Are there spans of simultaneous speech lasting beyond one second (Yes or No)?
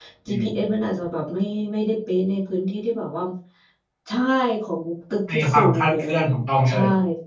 Yes